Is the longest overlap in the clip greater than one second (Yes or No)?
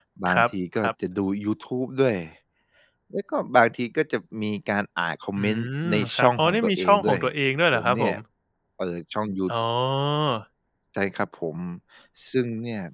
Yes